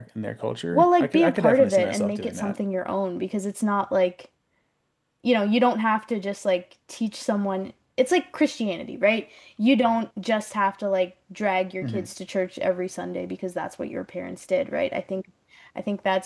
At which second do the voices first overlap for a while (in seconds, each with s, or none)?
0.7 s